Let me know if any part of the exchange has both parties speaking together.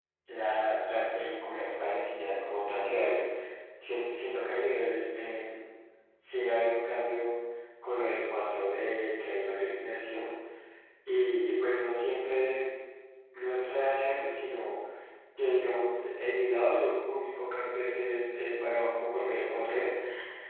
No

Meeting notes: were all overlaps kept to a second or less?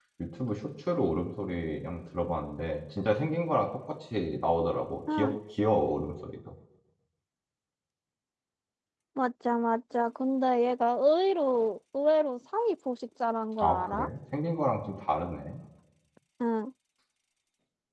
Yes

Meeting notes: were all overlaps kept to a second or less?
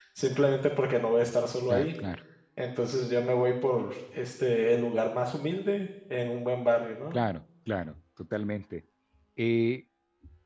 Yes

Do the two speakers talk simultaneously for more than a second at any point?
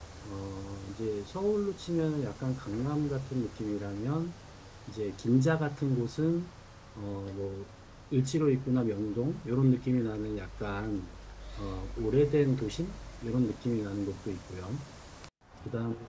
No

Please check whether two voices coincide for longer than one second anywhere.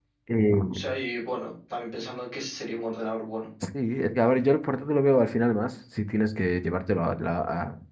No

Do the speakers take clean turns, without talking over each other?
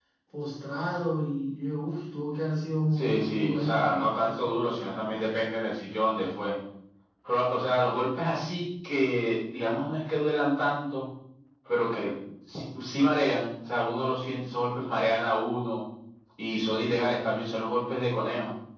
No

